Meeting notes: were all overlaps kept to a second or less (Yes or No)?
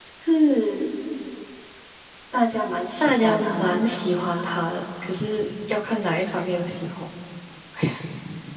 No